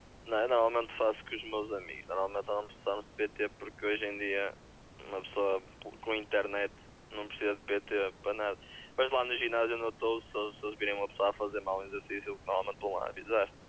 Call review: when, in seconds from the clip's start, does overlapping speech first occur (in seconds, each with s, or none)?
none